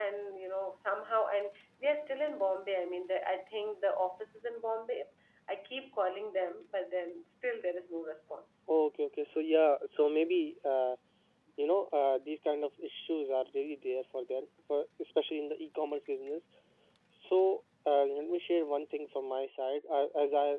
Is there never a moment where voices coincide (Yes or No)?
Yes